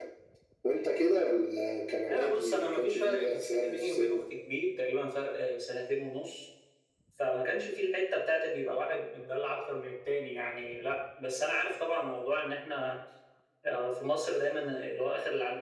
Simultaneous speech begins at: 2.0 s

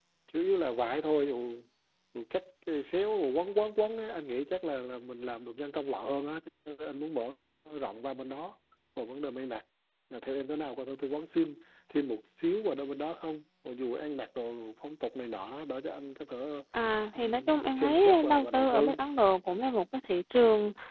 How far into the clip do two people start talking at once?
17.1 s

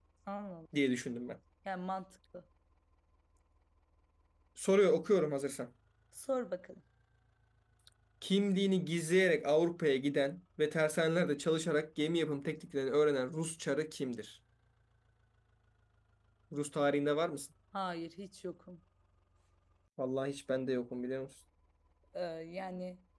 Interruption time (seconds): none

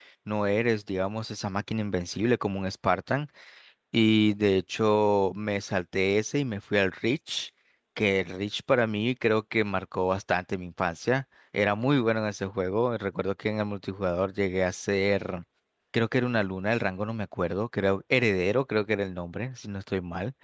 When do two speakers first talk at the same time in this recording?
none

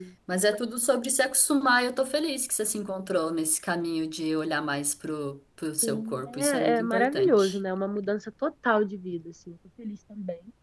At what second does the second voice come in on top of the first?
5.8 s

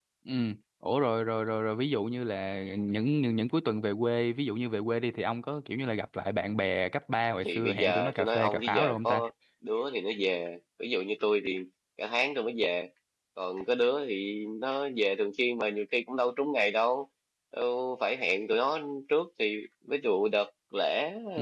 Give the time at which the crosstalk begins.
7.4 s

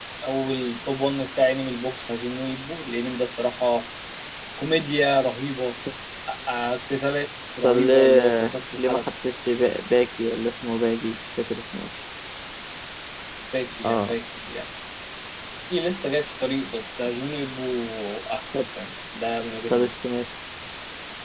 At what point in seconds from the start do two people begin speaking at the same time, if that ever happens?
7.6 s

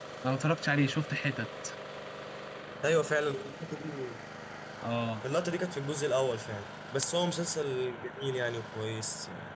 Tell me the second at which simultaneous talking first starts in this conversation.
none

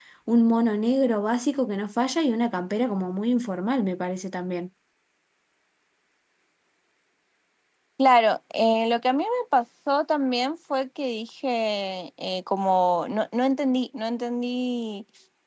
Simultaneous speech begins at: none

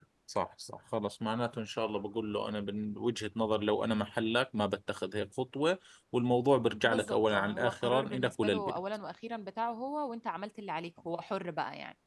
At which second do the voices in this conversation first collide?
6.8 s

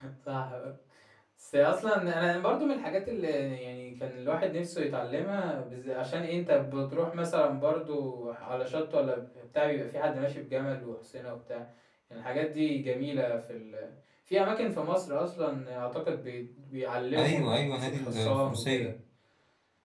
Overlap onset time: 17.1 s

